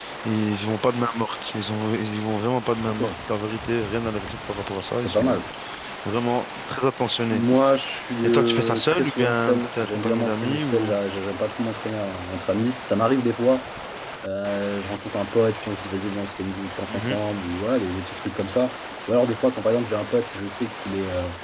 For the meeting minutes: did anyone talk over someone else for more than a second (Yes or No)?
Yes